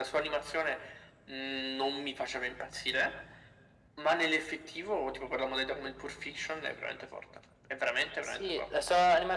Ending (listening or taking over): taking over